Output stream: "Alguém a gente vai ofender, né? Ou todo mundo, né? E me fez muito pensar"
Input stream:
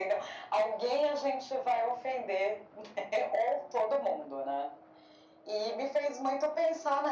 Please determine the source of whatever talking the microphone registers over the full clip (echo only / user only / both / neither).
echo only